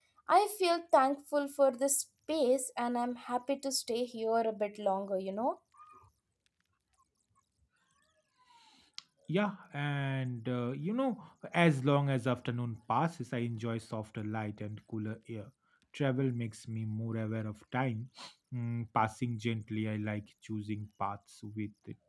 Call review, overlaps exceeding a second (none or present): none